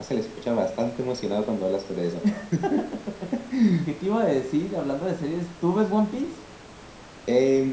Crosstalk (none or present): none